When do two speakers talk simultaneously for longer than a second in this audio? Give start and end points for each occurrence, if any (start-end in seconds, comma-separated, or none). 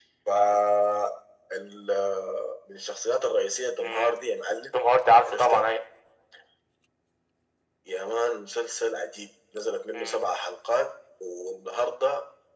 none